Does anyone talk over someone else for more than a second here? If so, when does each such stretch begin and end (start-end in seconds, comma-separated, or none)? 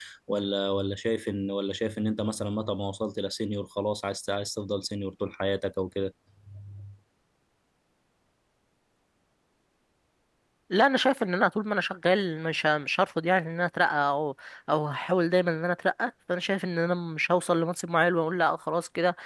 none